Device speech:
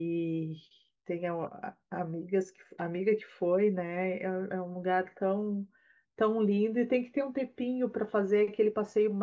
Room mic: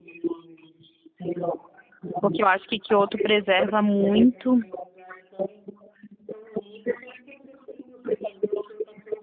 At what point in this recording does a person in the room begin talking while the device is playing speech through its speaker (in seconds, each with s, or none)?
2.2 s